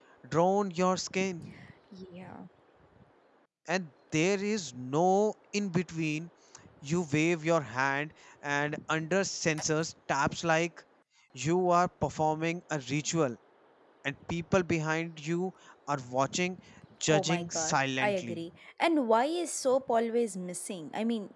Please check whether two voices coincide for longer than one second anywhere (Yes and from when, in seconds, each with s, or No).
Yes, from 17.1 s